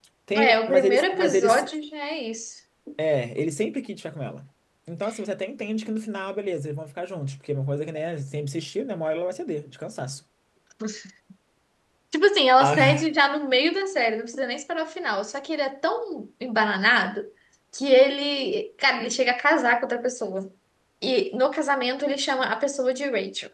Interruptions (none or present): present